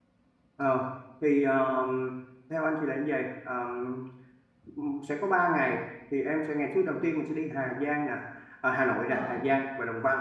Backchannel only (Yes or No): Yes